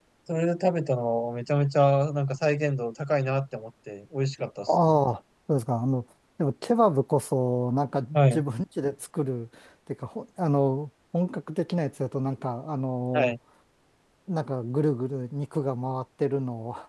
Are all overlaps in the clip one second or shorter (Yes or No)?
Yes